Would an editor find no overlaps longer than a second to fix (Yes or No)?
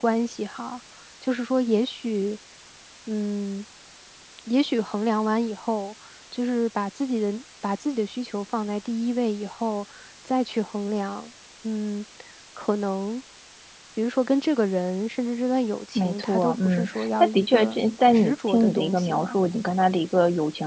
No